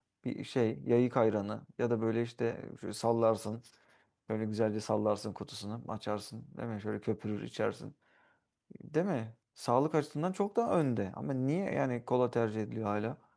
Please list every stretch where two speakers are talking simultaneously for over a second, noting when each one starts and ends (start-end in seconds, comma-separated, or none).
none